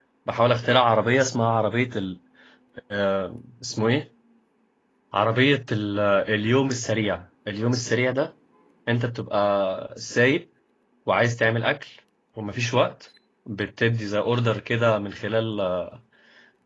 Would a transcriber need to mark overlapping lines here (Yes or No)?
No